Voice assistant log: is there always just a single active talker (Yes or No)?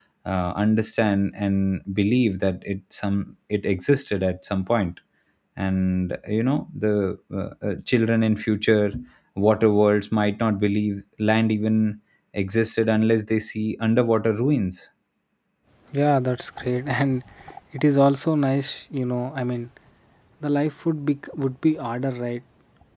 Yes